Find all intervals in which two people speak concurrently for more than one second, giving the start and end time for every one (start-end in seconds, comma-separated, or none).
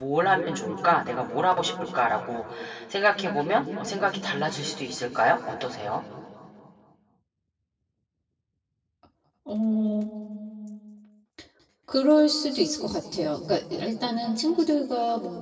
none